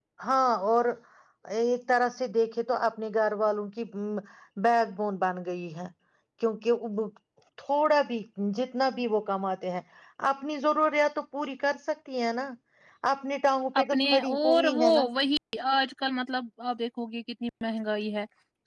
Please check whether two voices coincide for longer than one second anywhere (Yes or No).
Yes